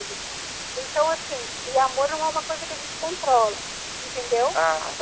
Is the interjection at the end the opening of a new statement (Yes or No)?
No